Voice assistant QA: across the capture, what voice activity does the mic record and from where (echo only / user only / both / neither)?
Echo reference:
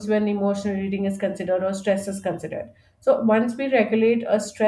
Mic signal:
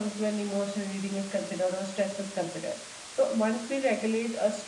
echo only